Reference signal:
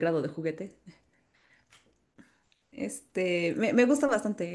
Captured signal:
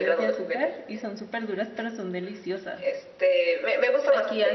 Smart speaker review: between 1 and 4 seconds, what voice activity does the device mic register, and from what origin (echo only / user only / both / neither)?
both